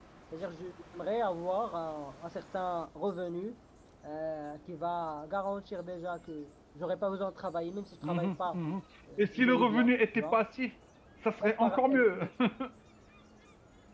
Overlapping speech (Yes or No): Yes